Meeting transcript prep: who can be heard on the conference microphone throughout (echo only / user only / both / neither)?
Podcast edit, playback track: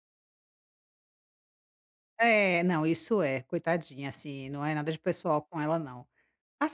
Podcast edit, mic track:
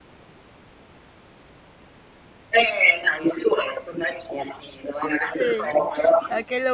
both